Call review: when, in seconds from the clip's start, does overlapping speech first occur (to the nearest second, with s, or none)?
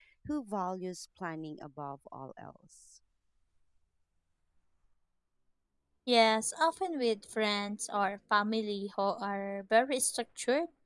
none